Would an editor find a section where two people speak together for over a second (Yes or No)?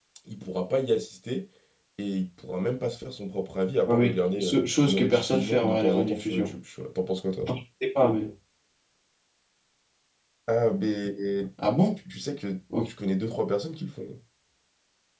Yes